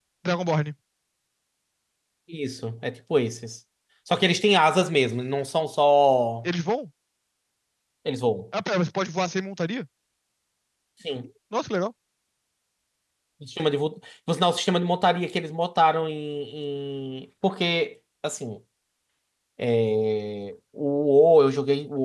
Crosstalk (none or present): none